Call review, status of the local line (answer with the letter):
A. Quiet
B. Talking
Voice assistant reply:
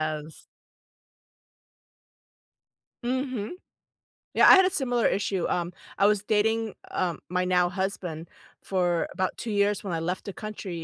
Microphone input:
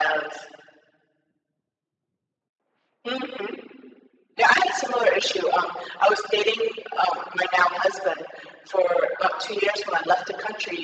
A